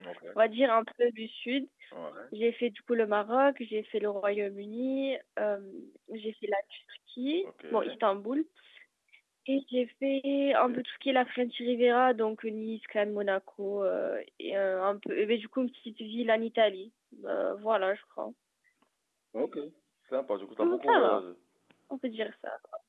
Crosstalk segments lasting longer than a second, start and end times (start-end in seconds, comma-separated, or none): none